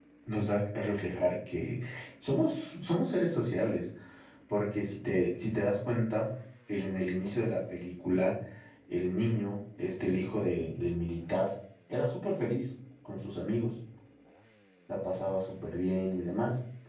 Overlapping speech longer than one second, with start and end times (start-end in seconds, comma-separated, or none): none